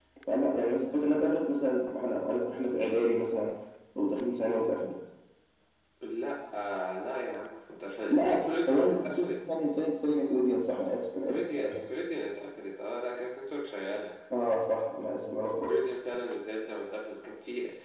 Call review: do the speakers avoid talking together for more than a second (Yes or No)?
No